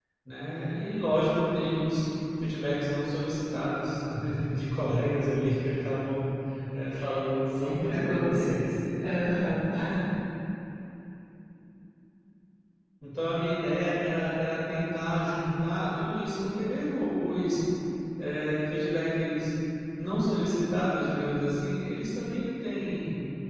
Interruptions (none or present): present